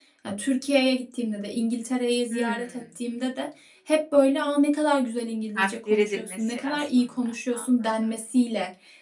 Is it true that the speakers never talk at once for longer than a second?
No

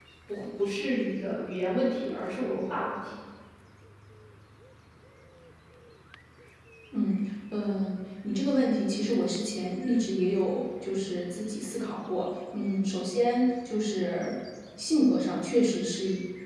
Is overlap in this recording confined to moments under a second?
Yes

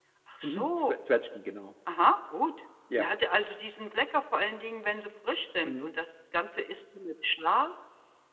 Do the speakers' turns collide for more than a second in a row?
No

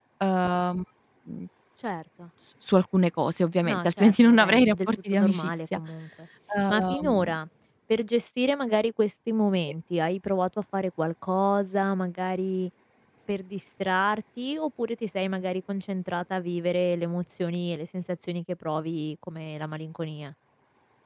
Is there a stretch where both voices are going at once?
Yes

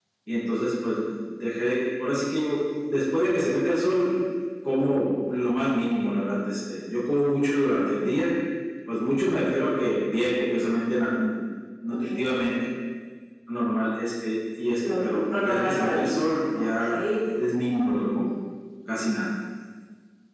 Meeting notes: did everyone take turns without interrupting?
No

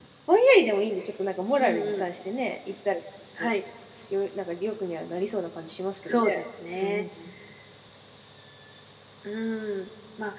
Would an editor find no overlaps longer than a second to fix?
Yes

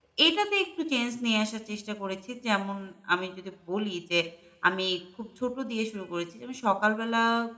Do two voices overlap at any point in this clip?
No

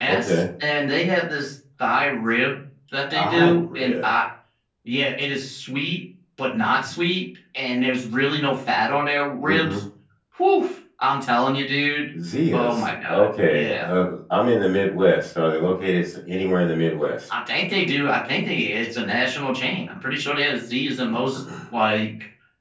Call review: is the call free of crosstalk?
No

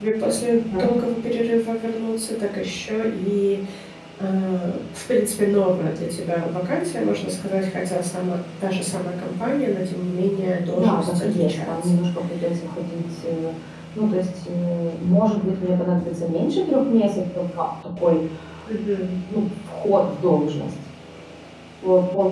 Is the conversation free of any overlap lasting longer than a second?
No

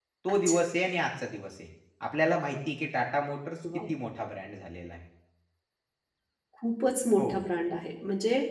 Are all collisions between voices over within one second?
Yes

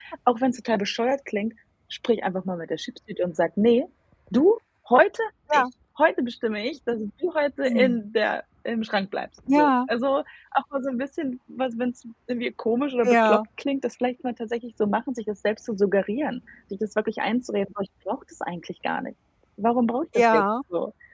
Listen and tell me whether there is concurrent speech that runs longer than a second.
No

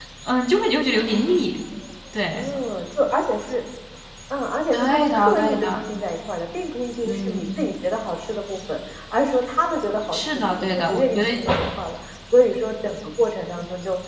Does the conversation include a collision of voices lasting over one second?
Yes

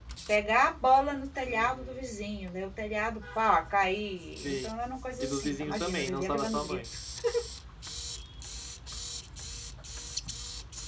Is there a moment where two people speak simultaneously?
Yes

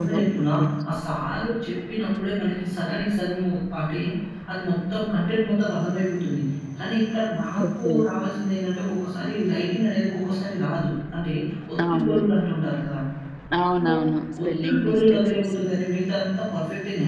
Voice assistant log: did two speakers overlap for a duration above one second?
Yes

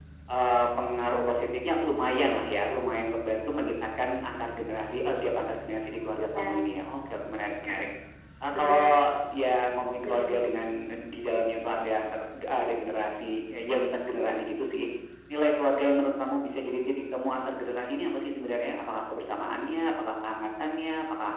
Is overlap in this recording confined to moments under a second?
Yes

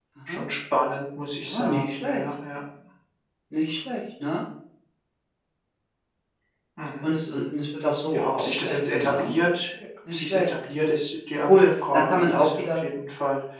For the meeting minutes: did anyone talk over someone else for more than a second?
Yes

